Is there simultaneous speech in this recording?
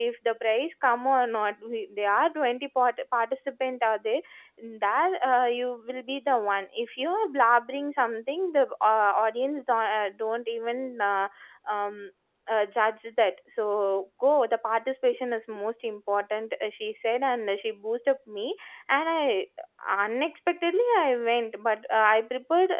No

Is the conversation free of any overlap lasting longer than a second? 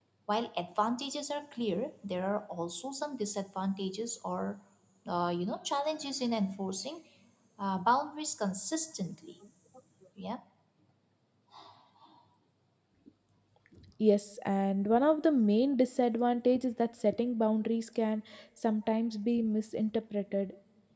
Yes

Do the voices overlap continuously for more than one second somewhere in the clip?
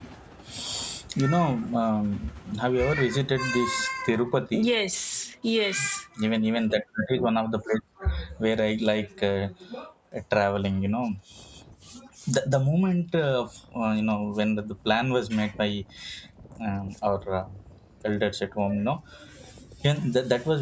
No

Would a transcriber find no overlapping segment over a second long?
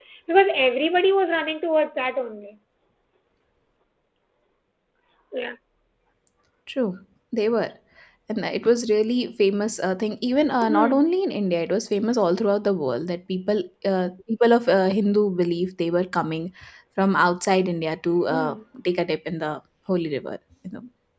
Yes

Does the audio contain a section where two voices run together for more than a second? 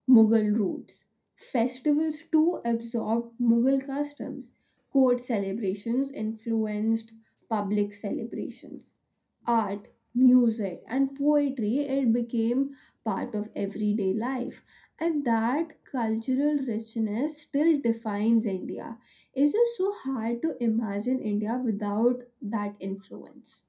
No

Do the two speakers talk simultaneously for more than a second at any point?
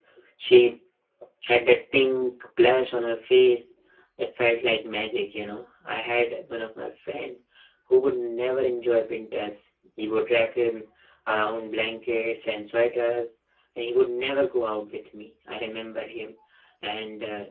No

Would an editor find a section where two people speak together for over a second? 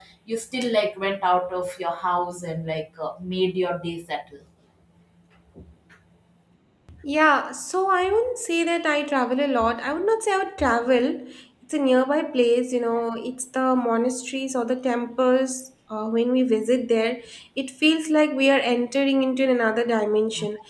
No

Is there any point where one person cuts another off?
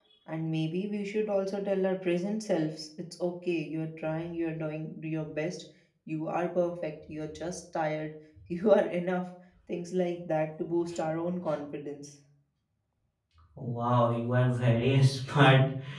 No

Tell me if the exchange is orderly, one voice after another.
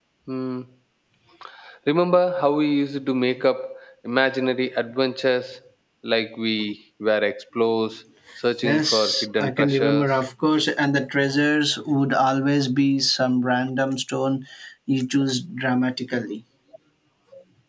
No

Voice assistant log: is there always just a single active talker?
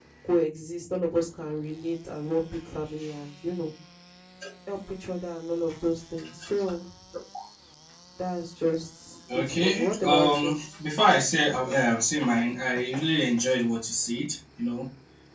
No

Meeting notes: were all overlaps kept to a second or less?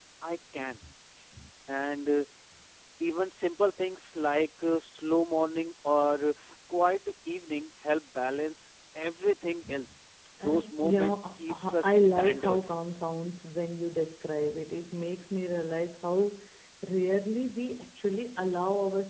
No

